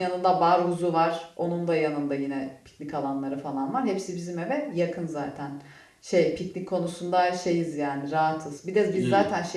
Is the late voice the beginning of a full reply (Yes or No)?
No